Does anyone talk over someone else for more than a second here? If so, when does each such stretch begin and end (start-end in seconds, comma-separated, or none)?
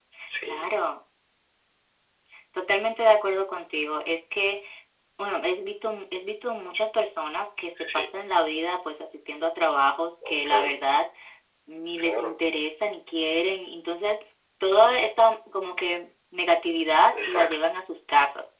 none